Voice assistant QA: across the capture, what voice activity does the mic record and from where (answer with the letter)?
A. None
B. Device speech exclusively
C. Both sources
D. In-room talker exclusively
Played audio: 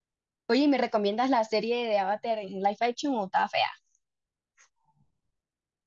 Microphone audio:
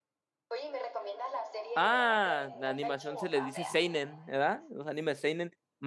C